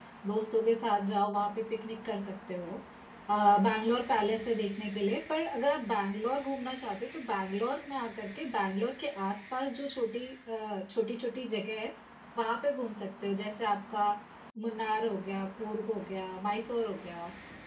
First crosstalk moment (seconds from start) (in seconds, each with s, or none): none